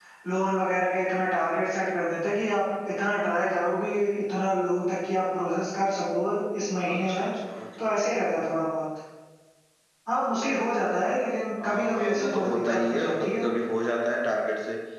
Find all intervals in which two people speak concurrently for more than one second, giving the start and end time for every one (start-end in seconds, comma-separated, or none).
11.6-13.4